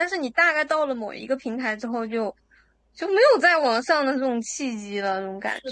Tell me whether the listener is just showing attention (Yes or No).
No